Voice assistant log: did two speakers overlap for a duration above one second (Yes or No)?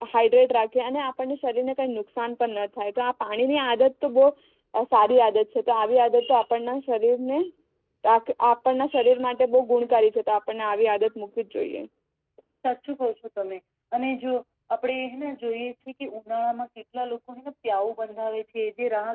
No